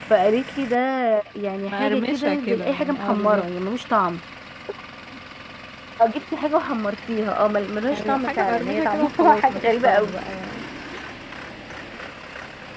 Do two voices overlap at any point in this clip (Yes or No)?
Yes